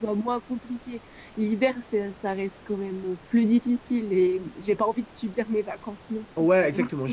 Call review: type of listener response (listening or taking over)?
taking over